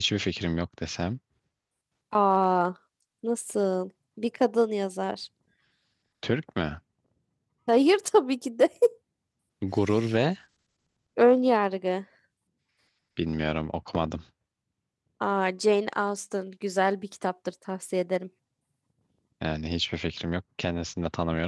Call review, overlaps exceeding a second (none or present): none